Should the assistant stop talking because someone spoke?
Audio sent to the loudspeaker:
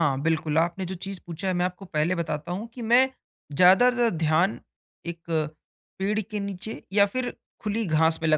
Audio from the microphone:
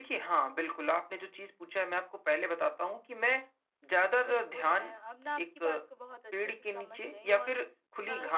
Yes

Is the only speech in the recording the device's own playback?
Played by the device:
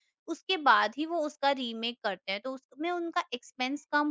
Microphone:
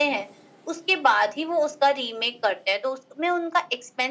Yes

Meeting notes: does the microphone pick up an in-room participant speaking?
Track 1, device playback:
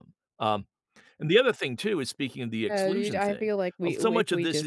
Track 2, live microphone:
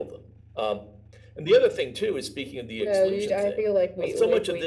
No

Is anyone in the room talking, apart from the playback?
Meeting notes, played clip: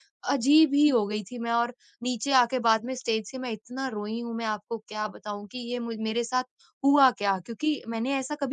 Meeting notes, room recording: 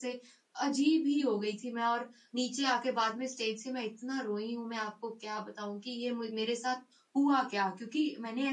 No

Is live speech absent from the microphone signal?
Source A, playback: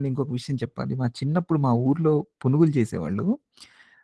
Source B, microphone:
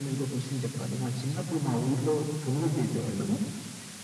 Yes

